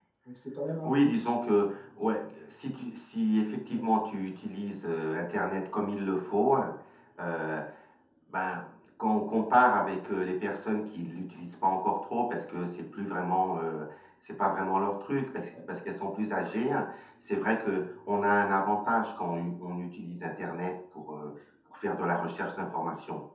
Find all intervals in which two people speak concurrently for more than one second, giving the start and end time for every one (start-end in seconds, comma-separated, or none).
none